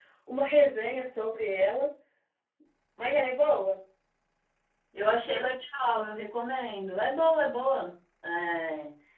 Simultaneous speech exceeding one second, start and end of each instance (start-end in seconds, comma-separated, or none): none